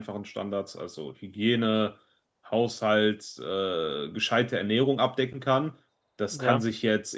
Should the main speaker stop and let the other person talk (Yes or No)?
No